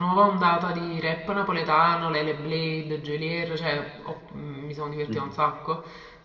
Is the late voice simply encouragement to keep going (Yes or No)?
Yes